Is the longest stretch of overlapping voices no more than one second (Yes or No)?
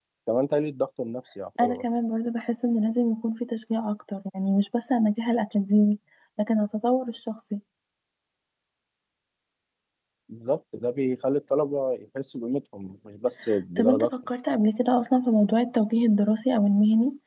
Yes